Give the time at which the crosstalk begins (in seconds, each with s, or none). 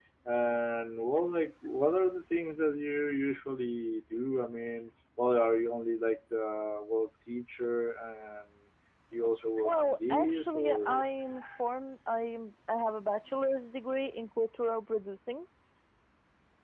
9.6 s